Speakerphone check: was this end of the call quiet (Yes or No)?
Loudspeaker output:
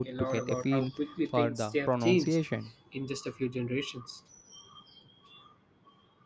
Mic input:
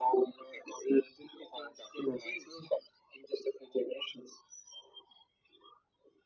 Yes